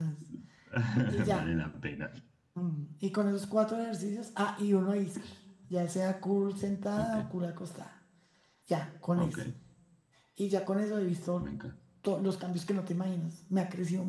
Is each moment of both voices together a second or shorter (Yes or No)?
Yes